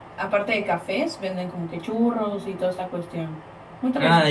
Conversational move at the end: taking over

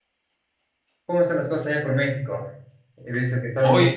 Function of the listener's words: listening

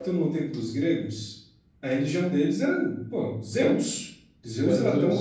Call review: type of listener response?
listening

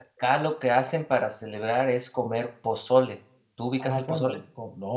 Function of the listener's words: taking over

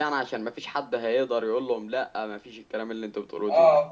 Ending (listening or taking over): taking over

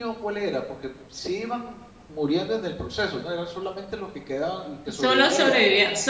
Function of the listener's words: taking over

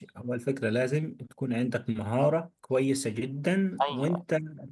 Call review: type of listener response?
listening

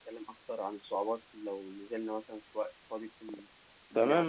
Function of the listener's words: taking over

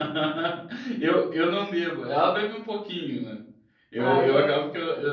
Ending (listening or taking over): listening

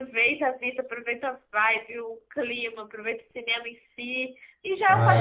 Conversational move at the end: listening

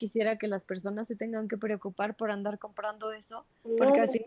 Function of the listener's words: listening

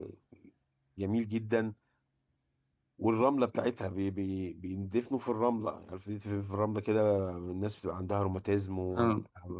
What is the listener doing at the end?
listening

